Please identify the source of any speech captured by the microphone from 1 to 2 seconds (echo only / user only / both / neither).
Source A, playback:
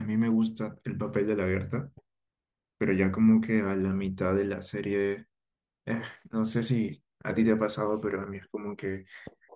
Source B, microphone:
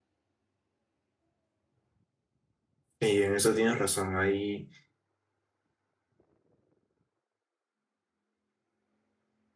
neither